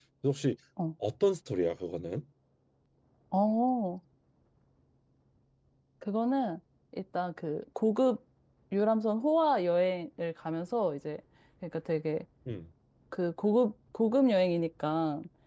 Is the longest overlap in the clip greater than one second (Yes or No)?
No